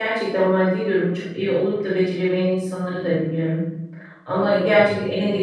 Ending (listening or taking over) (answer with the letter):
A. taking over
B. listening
B